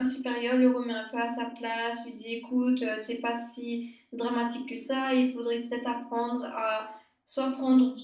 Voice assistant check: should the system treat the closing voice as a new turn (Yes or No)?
No